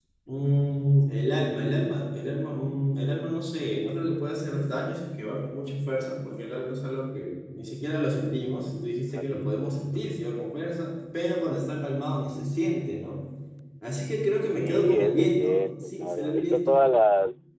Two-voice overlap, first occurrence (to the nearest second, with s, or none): 15 s